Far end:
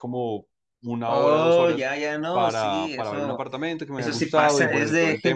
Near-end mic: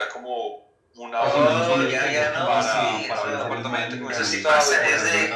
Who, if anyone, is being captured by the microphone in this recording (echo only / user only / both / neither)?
both